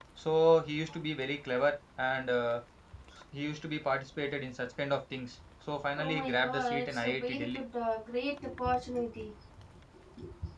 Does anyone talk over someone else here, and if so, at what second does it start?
6.0 s

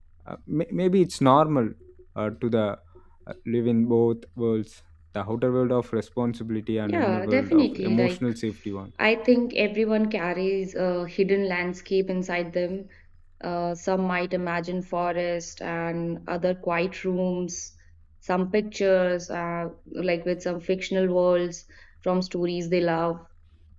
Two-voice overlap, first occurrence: 6.8 s

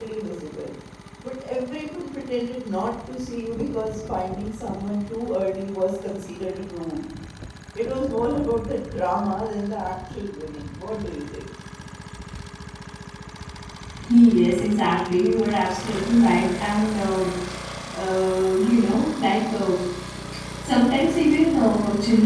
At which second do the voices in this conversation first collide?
none

